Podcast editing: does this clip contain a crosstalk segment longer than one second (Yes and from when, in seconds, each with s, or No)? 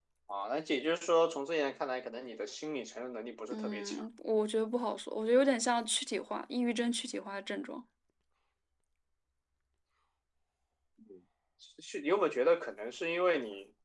No